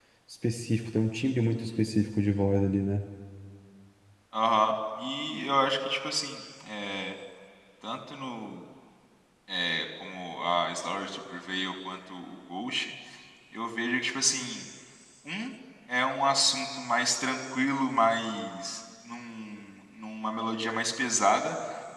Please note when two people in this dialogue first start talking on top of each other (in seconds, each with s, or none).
none